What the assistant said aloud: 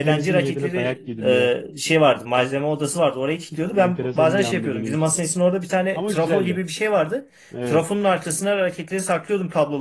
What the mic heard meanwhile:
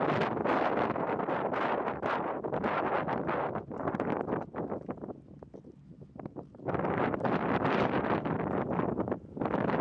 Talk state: neither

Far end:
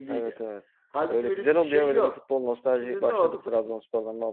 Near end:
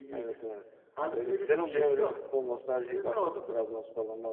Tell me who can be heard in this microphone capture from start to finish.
echo only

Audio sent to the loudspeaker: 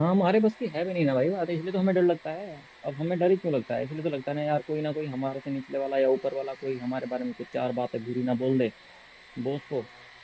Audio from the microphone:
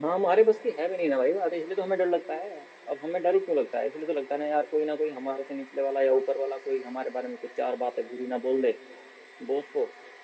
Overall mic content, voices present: echo only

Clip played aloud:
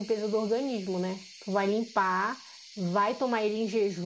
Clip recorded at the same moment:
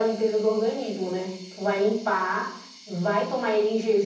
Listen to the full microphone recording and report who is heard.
echo only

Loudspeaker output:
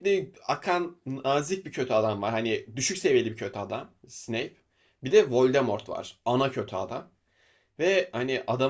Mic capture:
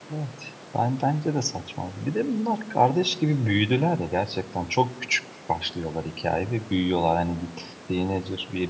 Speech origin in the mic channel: user only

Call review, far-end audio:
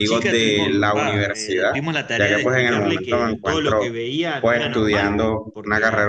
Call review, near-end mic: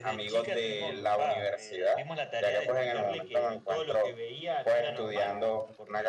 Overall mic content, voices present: echo only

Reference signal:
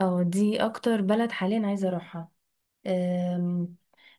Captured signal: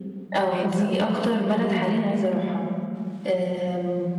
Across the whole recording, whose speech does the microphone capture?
both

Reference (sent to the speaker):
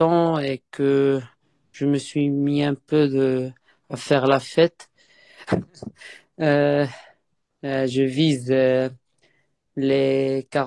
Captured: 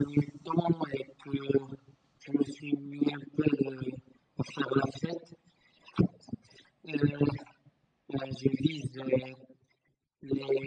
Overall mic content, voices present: echo only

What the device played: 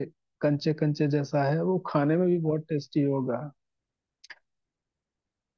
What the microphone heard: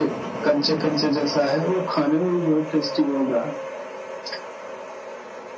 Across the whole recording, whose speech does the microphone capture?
echo only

